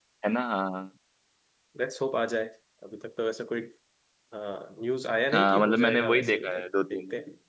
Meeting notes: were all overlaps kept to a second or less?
No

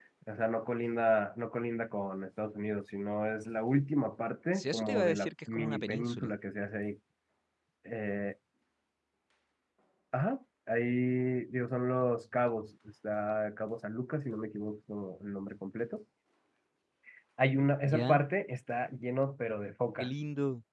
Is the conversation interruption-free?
No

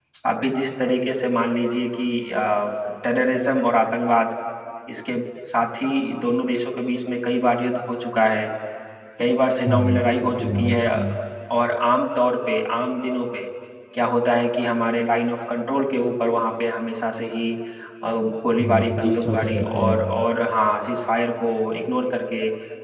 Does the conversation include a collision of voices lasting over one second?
Yes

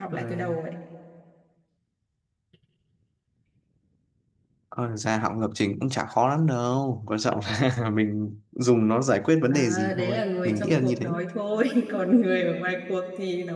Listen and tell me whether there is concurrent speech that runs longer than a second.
Yes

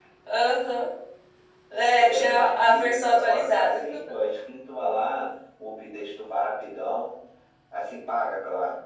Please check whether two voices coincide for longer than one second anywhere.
Yes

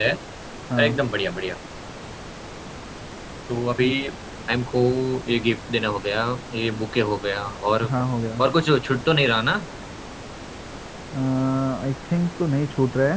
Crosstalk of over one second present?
No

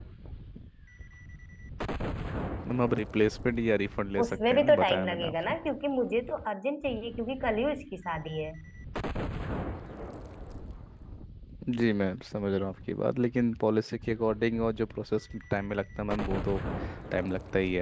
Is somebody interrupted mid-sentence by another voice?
Yes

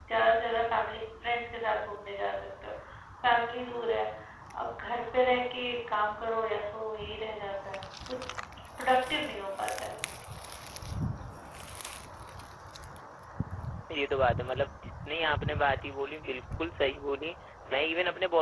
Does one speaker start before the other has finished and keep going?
No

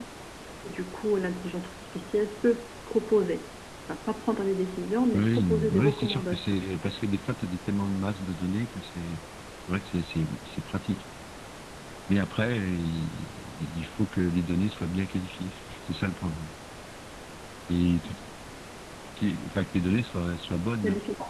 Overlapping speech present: Yes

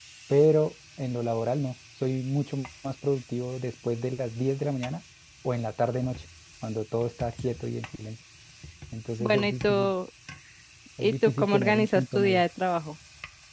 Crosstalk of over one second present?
Yes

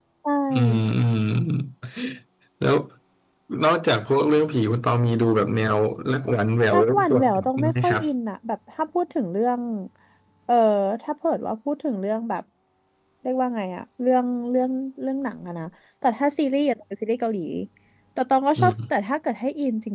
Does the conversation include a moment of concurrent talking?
Yes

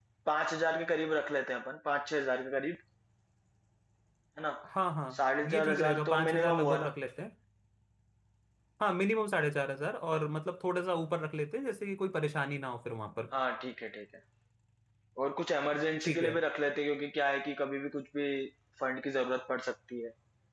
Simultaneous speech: Yes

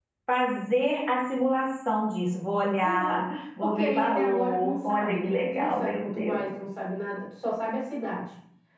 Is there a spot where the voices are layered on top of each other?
Yes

